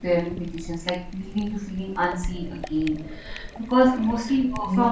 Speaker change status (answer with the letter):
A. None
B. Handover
A